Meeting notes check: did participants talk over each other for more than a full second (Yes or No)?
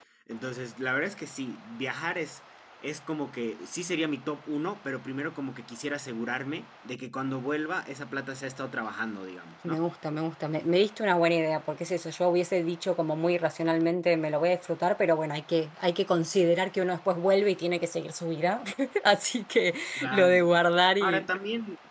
No